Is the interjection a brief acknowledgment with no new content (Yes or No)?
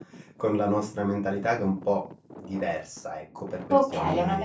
No